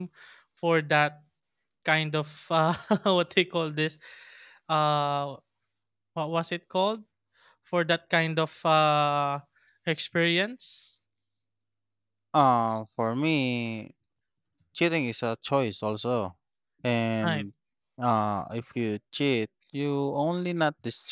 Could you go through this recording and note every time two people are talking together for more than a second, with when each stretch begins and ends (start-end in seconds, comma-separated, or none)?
none